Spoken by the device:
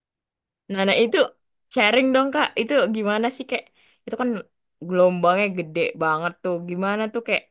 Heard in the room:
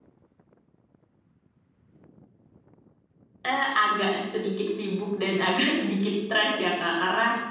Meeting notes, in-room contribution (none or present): present